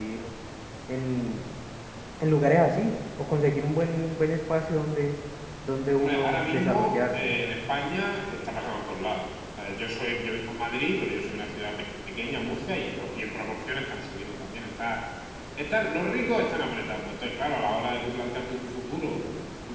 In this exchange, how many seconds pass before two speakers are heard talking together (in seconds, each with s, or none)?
6.0 s